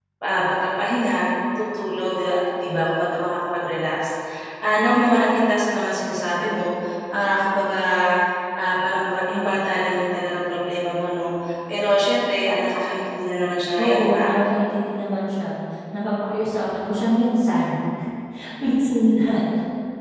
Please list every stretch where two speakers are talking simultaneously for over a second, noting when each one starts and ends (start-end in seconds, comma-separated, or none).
none